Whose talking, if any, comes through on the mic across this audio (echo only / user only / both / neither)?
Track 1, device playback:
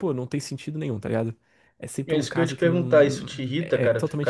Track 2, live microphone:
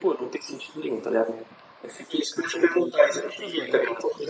both